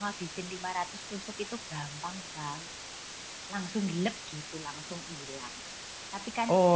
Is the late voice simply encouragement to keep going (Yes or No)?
Yes